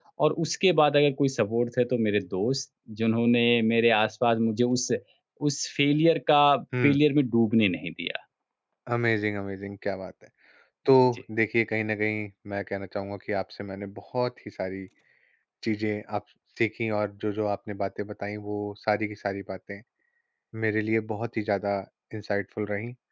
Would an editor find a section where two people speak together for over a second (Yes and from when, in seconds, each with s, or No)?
No